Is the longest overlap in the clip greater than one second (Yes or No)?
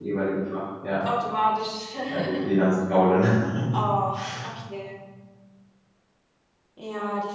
No